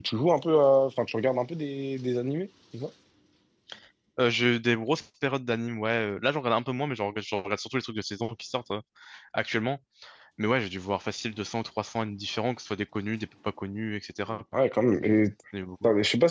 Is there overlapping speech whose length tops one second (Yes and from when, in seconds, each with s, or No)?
No